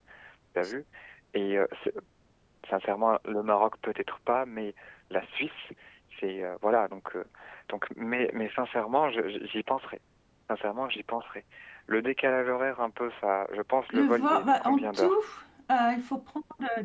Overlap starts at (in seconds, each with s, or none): 13.9 s